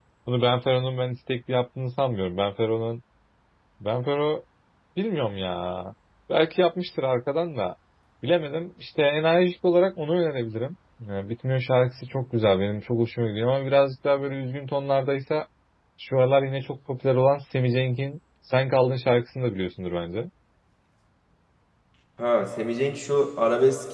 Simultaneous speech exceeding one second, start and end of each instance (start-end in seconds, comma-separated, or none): none